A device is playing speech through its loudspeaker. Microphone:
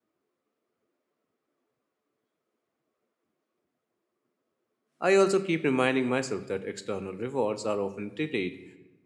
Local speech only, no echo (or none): I also keep reminding myself that external rewards are often delayed.